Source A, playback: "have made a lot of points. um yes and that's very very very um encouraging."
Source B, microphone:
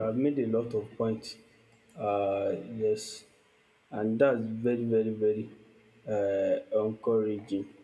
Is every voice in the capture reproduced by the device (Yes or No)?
Yes